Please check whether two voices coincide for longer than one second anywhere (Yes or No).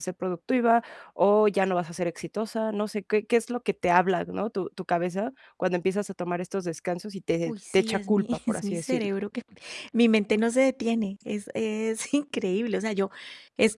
Yes